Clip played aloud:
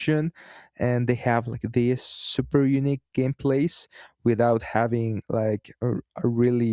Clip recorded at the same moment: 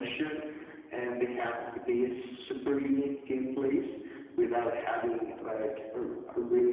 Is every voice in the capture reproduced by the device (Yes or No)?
Yes